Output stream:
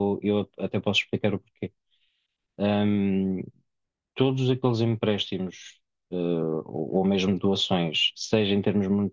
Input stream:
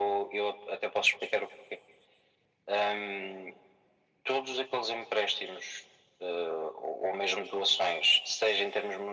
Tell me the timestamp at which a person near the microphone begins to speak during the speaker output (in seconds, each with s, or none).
none